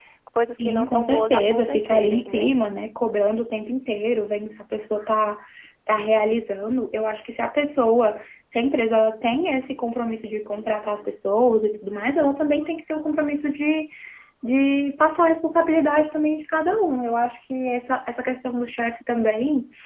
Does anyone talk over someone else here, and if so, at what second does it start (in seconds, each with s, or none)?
0.6 s